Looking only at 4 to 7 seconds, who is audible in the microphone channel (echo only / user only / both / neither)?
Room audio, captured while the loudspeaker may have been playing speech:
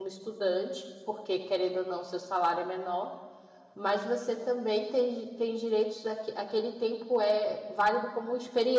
user only